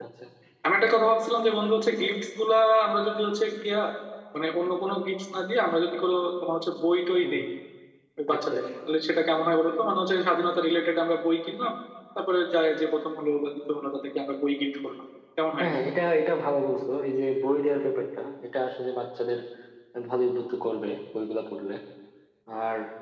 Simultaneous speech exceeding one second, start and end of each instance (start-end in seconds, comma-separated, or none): none